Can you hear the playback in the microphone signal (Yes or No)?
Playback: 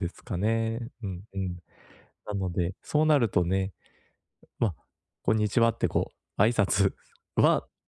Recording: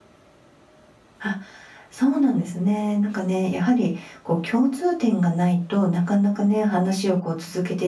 No